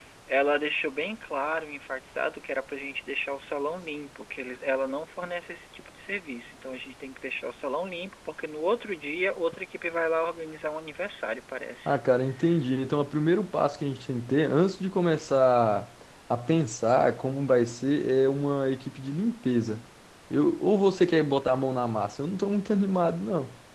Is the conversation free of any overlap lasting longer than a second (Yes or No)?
Yes